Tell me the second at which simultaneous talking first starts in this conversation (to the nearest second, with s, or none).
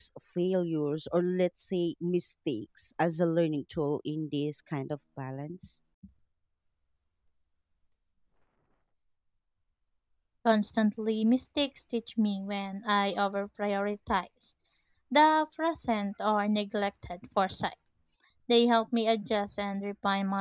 none